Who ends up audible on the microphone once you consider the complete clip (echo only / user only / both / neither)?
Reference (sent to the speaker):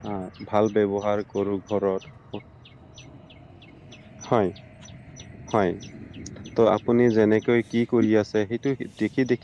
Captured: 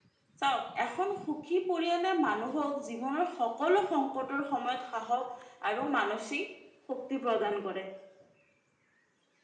user only